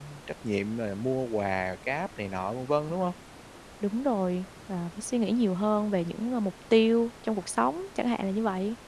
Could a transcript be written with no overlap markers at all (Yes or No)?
Yes